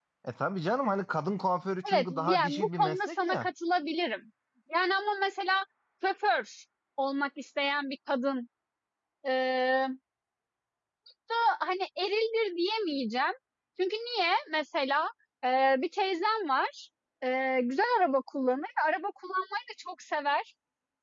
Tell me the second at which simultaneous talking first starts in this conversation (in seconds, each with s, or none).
1.8 s